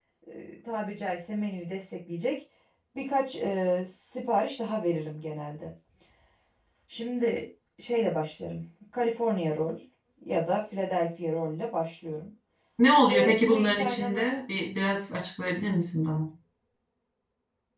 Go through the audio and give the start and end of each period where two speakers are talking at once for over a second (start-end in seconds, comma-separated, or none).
13.0-14.3